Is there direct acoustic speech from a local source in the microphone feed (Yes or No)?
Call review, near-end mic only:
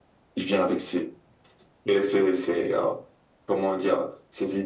No